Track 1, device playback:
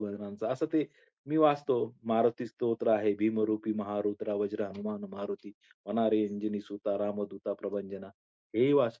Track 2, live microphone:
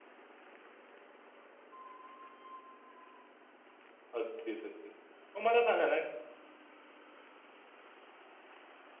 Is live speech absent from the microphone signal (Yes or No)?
No